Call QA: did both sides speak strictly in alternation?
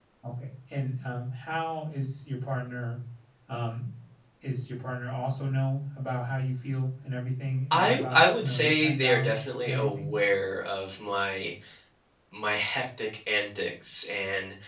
No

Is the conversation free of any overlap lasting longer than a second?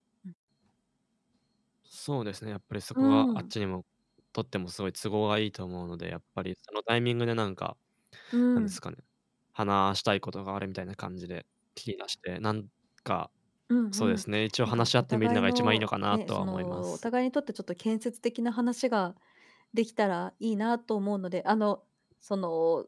No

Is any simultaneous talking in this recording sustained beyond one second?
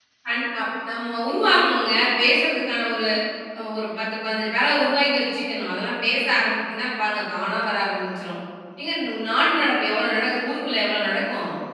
No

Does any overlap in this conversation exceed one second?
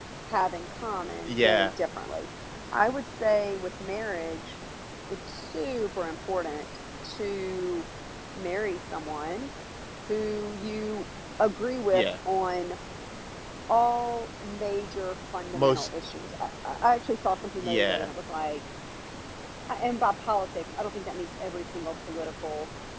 No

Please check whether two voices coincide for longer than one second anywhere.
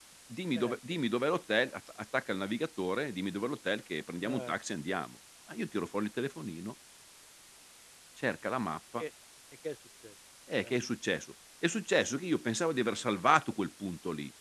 No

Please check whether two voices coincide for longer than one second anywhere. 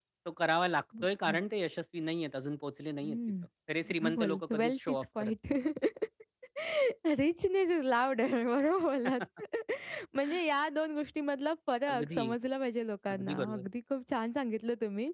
Yes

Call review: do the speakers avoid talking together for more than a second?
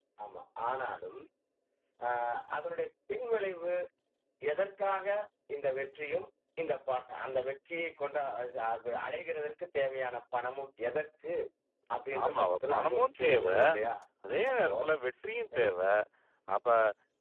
No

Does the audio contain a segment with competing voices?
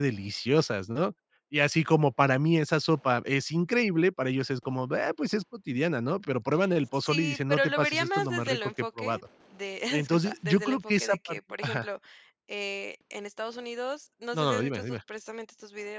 Yes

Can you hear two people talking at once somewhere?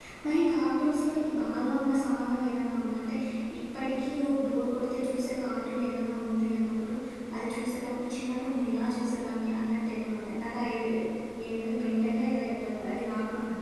No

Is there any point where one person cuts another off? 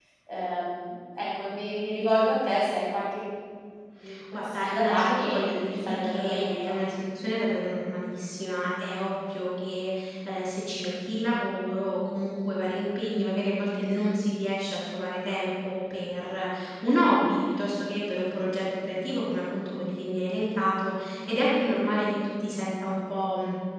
Yes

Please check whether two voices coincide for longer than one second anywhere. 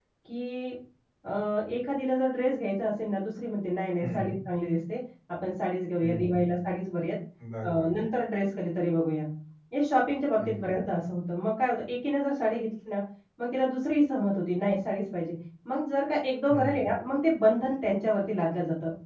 No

